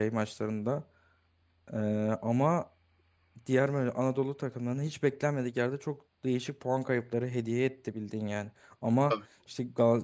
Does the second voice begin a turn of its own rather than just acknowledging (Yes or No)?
No